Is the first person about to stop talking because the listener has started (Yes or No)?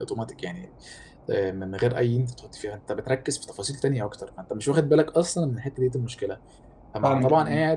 No